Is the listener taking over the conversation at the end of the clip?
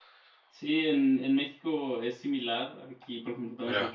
No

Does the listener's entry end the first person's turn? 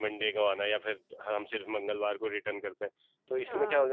No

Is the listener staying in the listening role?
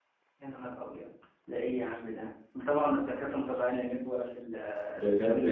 No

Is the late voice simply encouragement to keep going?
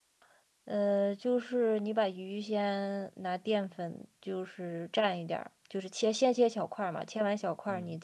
Yes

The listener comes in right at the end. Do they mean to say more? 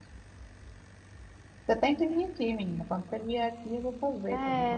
Yes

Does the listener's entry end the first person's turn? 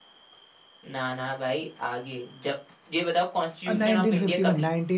Yes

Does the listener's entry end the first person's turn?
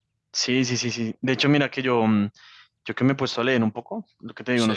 No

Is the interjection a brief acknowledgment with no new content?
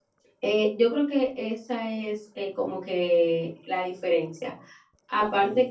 Yes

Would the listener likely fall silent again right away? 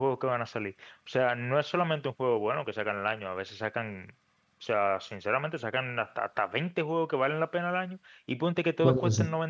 Yes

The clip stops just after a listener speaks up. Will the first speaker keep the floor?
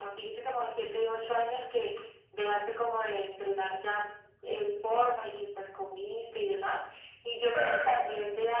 Yes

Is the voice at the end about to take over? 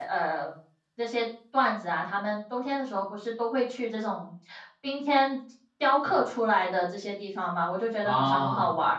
No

